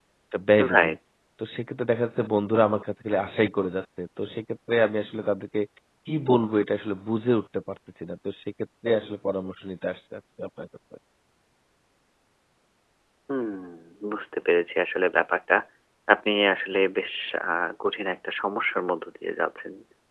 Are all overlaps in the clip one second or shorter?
Yes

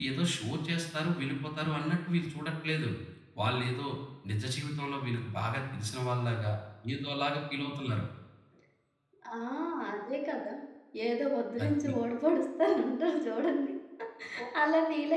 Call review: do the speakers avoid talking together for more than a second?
Yes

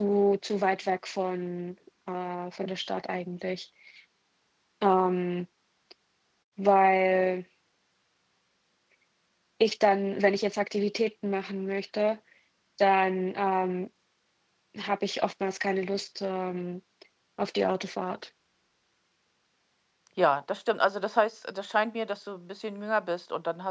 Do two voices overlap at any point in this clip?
No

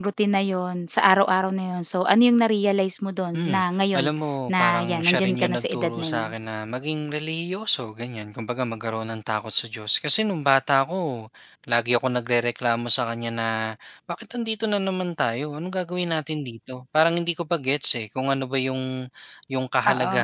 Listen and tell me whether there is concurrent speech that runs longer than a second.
Yes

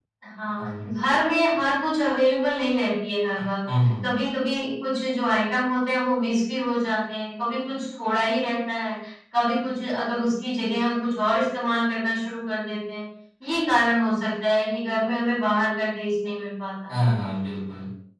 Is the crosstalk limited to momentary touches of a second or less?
Yes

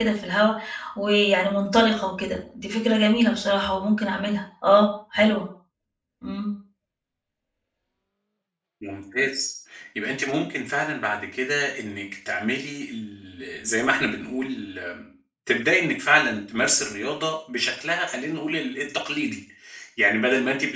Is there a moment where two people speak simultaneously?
No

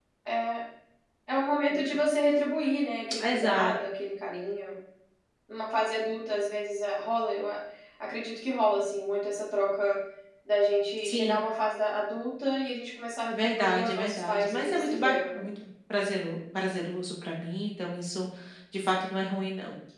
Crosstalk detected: Yes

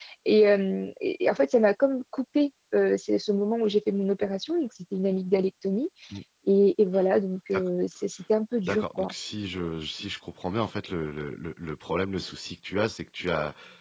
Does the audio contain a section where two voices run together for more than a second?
No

